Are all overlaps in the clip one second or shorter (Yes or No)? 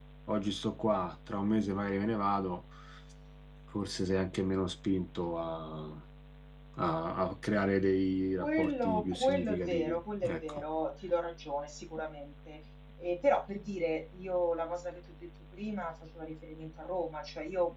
No